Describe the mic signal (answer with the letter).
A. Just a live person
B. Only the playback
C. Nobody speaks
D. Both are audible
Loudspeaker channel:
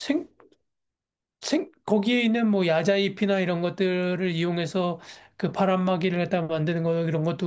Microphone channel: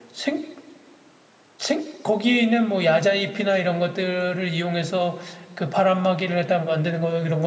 B